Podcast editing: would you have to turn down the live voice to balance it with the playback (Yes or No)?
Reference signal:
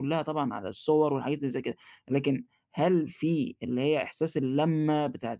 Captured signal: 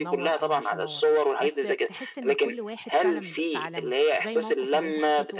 No